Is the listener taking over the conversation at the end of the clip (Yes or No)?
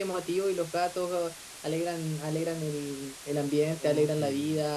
No